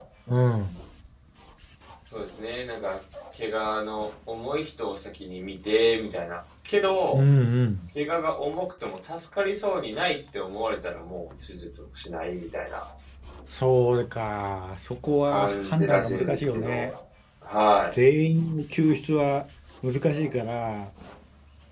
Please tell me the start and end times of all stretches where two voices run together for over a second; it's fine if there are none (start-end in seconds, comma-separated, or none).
15.3-16.9